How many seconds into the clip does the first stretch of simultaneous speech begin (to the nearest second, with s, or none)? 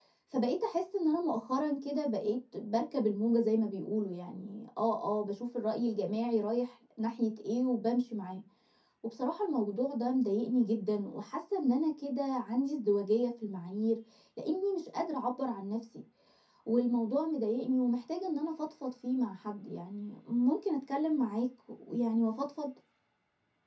none